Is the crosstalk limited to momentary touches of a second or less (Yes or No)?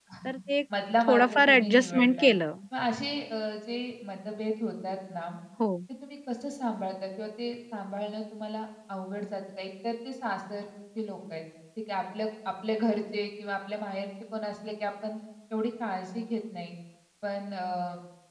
No